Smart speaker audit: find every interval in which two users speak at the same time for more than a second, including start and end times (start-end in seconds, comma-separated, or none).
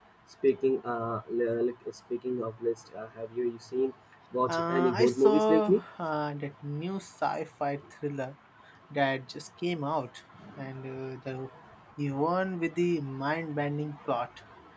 4.5-5.8